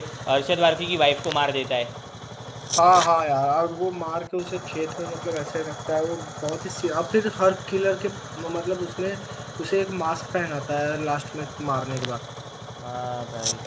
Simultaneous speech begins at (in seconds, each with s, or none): none